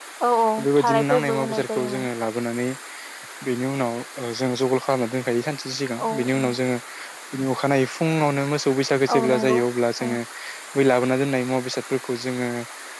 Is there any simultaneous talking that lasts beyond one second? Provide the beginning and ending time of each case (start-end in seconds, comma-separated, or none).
0.6-2.1